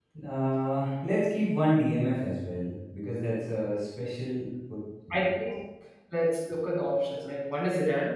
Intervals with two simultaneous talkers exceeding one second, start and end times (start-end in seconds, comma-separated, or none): none